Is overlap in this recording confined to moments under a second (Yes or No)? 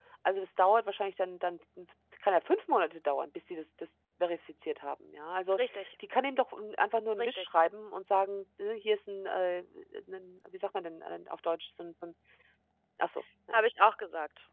Yes